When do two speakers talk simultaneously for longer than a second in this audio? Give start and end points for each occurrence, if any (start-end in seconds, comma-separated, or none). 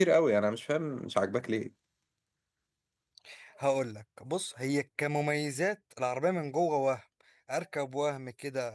none